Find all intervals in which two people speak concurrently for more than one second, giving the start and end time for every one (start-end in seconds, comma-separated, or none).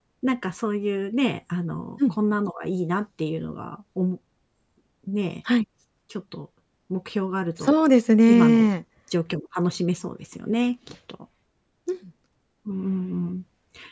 none